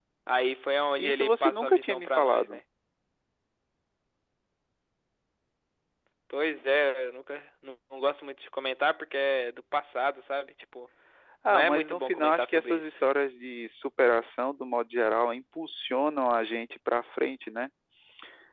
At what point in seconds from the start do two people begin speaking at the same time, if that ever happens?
1 s

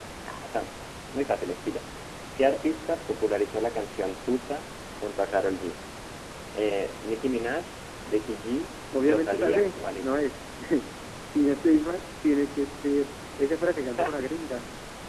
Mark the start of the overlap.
9 s

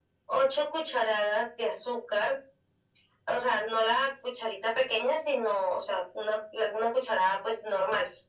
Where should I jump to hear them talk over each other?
none

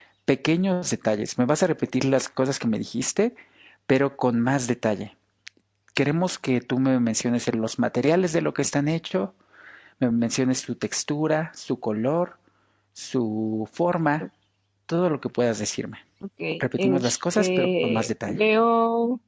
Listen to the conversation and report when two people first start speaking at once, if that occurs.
17 s

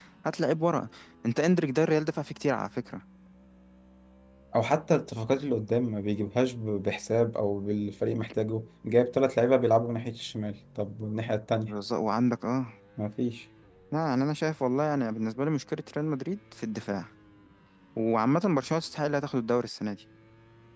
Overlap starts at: none

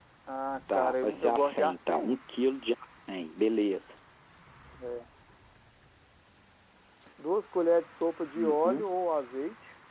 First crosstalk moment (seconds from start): 1 s

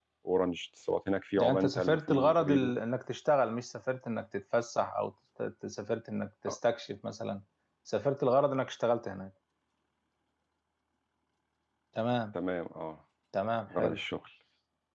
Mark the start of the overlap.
1 s

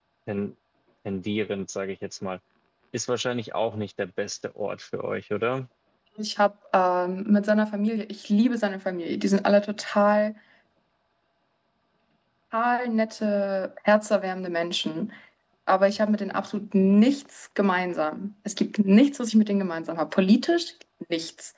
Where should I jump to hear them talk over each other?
none

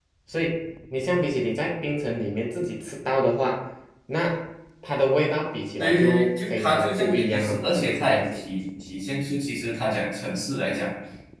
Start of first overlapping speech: 6 s

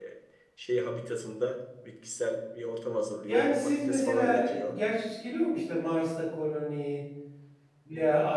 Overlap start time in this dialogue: 3 s

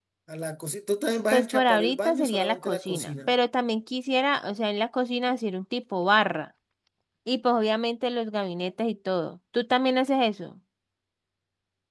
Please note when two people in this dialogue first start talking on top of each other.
1 s

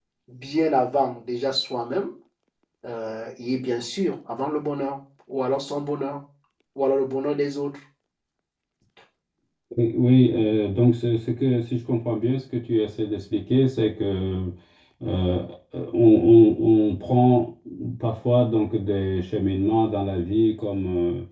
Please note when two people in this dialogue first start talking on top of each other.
none

